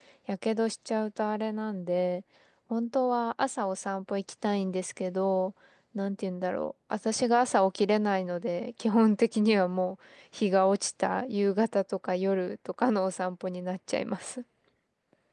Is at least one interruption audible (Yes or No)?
No